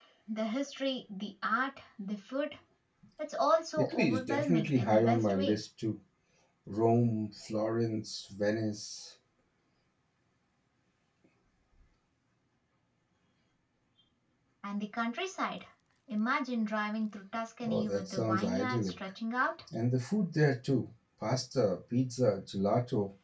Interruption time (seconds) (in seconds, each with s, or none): 3.8 s